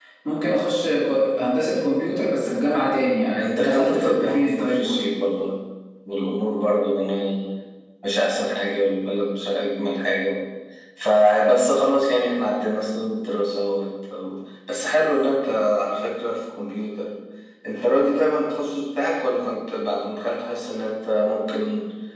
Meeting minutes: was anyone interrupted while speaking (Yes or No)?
Yes